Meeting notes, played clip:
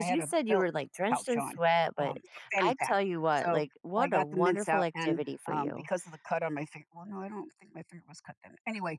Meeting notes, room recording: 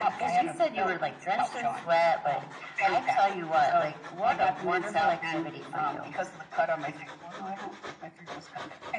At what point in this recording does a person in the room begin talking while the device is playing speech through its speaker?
none

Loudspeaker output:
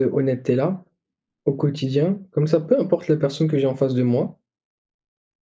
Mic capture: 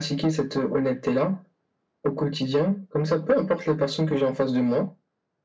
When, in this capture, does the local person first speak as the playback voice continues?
none

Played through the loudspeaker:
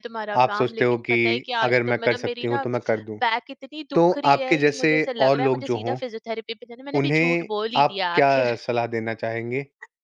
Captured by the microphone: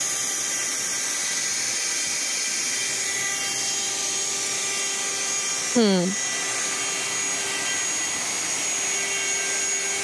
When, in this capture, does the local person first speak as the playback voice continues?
5.8 s

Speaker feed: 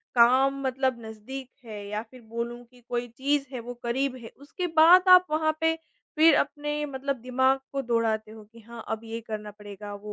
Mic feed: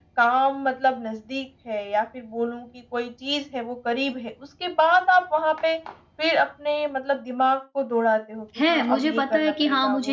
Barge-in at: 8.6 s

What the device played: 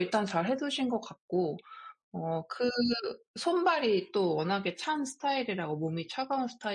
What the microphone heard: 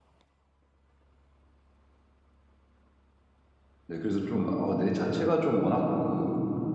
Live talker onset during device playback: 3.9 s

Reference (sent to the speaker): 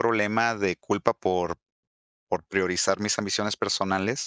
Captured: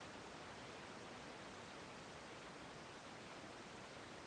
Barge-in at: none

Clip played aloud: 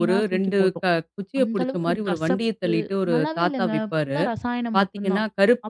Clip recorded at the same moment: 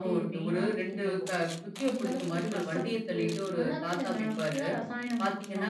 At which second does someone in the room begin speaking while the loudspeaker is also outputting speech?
none

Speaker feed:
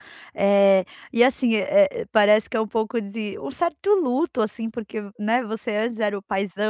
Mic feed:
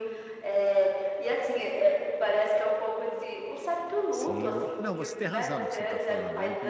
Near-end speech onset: 4.1 s

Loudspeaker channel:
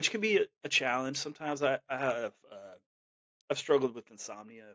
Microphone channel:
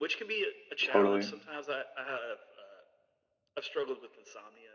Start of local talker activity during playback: 0.8 s

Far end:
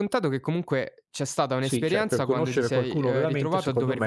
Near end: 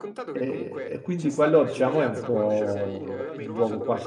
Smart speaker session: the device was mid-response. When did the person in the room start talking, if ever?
0.4 s

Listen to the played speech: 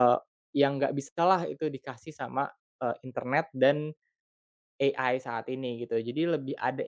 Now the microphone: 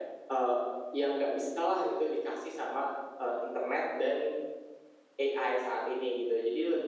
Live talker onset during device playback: none

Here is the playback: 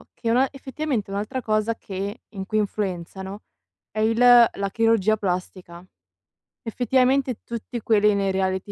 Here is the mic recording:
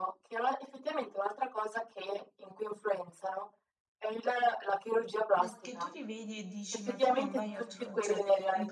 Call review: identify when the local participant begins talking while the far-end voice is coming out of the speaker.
5.3 s

